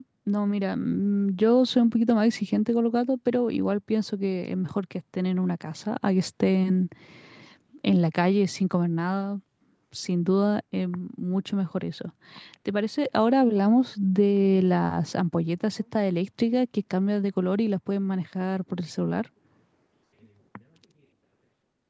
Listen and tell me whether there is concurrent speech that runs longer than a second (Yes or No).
No